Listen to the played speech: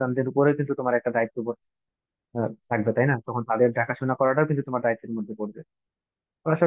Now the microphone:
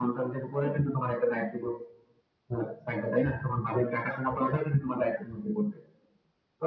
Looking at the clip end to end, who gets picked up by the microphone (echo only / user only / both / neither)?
echo only